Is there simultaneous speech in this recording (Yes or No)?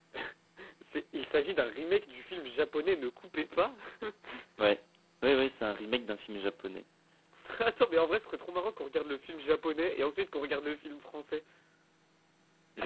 No